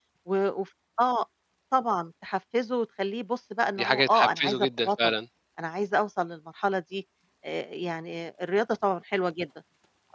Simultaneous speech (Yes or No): Yes